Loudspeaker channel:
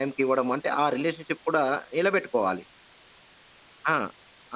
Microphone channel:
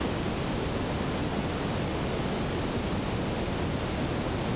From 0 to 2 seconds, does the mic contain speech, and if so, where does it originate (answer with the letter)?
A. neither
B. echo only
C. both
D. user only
A